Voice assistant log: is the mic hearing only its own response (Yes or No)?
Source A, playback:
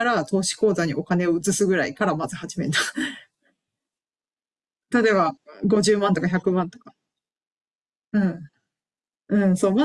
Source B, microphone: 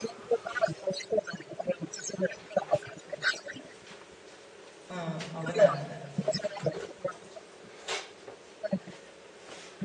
No